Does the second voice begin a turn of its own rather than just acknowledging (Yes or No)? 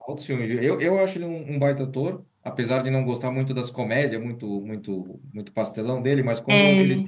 No